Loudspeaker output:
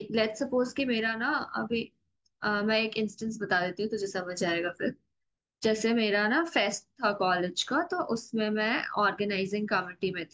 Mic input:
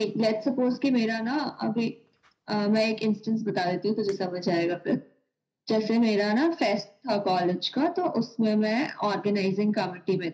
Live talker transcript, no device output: none

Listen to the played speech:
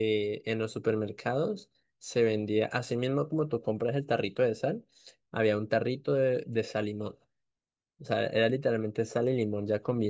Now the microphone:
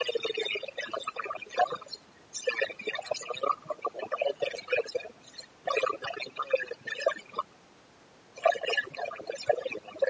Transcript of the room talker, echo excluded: none

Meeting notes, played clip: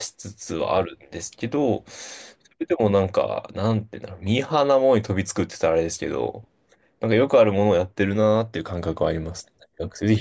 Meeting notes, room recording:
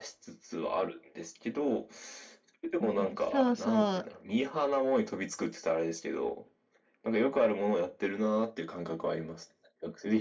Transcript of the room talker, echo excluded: うん、そうそう。

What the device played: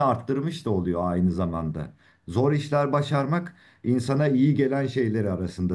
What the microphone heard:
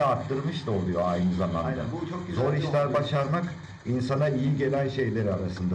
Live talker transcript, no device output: Aynen bu çok güzel bir hobi.

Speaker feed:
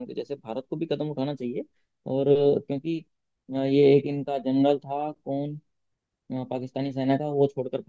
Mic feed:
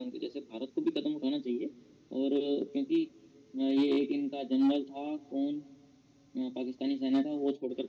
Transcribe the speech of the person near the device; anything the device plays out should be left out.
none

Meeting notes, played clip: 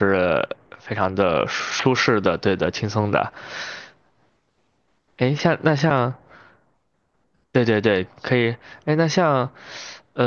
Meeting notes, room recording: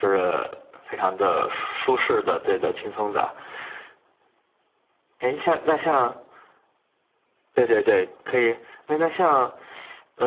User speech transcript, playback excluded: none

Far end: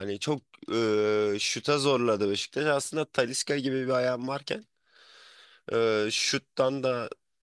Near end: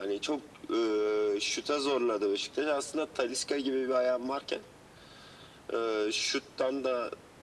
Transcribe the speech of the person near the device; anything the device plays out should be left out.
none

